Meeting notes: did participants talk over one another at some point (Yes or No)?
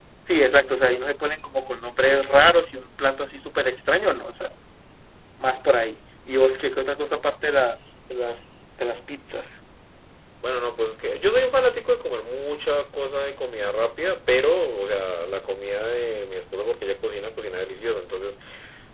No